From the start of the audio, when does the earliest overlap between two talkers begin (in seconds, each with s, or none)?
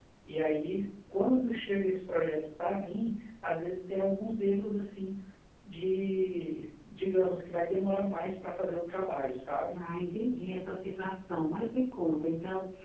none